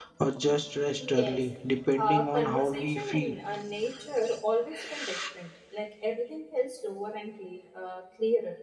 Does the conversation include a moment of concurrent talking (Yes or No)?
Yes